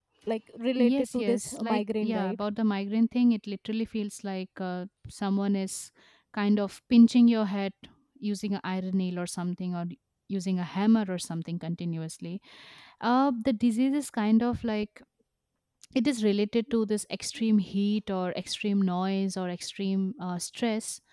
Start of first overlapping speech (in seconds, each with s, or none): 0.8 s